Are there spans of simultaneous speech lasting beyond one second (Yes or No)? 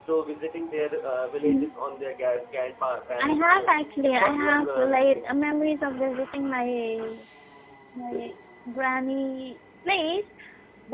Yes